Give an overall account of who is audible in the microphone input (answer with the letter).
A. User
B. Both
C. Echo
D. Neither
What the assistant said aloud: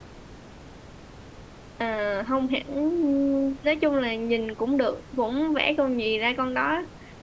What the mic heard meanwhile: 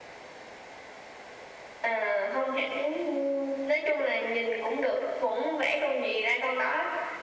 C